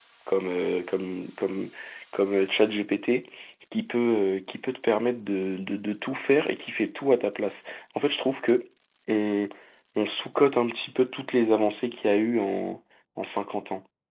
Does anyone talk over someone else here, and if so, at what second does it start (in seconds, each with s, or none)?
none